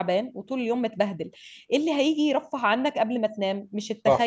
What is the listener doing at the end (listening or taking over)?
listening